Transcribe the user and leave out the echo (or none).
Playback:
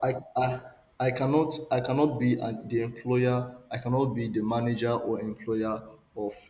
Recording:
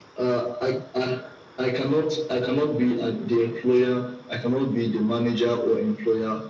none